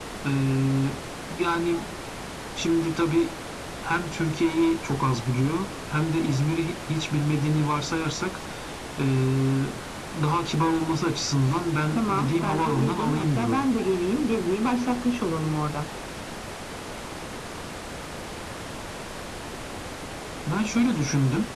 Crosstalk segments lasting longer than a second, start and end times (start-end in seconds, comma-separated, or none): 11.9-13.6